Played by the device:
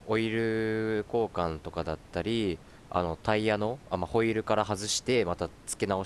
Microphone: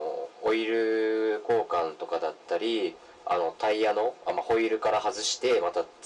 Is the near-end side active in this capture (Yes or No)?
No